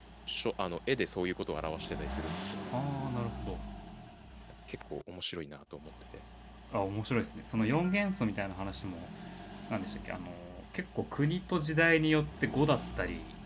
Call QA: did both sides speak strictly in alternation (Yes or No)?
Yes